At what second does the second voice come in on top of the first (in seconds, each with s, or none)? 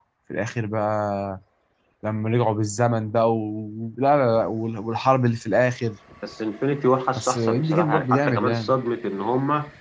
7.2 s